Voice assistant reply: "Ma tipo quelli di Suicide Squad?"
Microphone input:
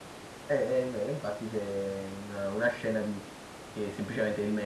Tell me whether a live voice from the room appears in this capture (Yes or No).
Yes